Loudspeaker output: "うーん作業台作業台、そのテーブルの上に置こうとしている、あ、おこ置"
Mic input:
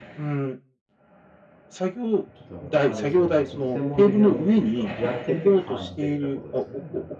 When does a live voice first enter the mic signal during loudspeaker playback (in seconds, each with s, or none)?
2.3 s